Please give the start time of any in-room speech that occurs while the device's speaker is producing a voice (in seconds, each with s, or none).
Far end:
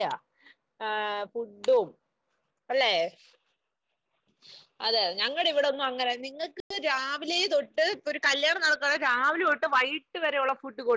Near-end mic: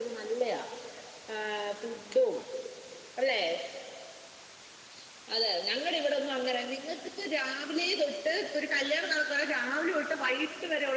none